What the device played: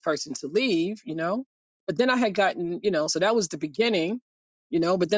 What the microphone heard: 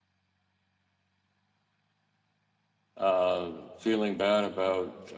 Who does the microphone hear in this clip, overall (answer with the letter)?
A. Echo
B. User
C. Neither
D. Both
B